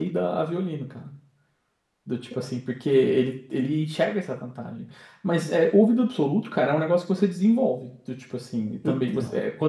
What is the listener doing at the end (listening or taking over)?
listening